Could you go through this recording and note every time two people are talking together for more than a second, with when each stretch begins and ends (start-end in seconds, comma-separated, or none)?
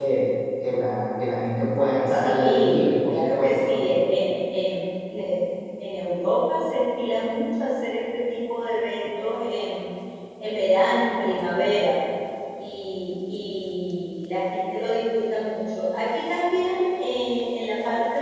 2.2-3.8